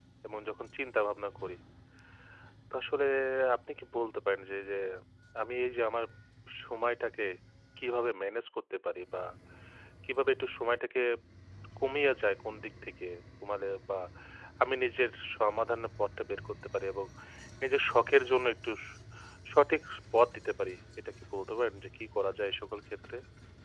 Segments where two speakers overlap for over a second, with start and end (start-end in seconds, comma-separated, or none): none